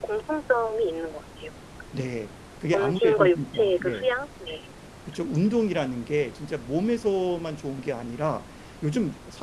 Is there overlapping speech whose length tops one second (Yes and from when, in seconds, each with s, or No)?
Yes, from 2.7 s